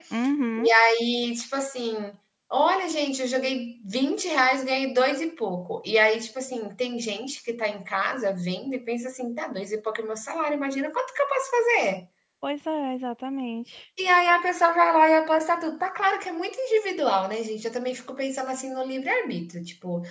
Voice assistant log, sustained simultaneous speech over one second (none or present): none